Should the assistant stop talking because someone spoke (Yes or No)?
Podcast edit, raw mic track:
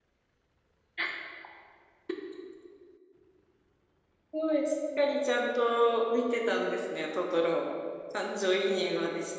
Yes